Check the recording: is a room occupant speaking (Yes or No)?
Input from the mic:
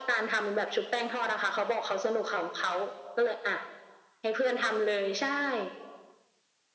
No